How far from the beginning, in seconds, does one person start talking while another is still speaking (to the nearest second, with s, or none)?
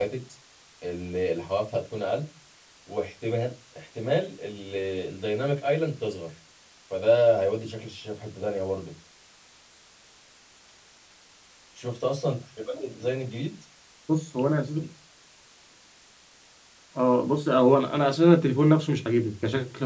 none